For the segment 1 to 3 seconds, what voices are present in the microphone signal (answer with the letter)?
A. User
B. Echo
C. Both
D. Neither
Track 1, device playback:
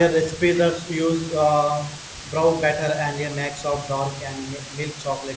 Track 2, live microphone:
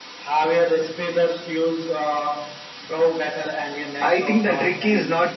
B